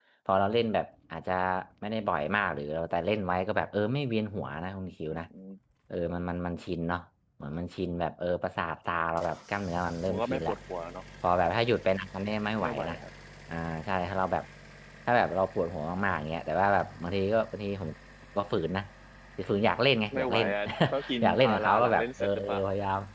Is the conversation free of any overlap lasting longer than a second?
No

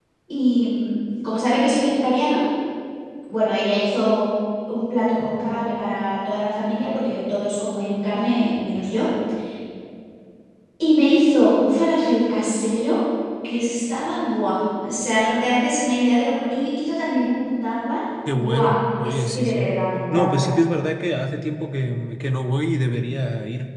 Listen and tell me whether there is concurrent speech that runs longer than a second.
Yes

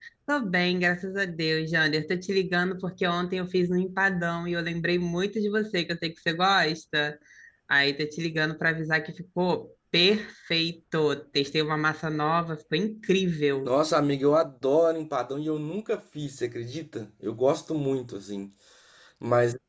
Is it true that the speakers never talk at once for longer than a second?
Yes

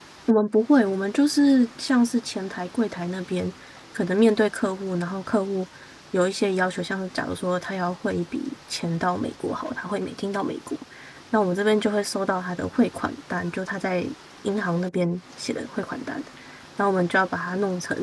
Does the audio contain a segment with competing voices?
No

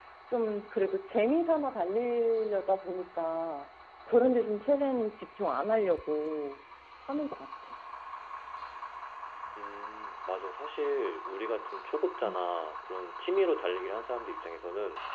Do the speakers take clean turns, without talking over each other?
Yes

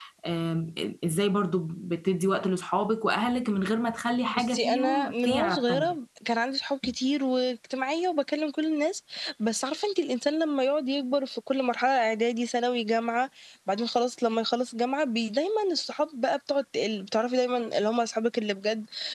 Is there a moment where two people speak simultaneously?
Yes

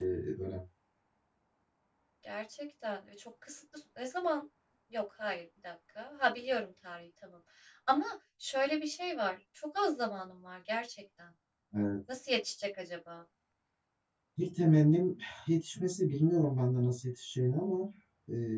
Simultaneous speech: No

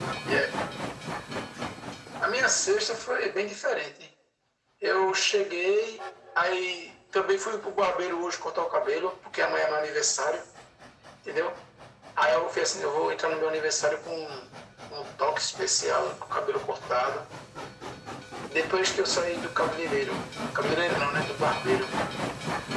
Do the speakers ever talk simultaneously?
No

